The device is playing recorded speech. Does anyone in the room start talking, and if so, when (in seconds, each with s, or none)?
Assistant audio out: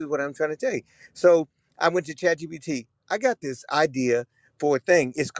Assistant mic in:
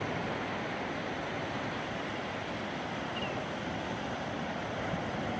none